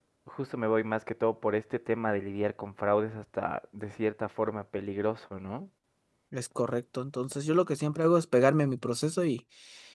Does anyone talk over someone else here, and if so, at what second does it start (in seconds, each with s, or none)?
none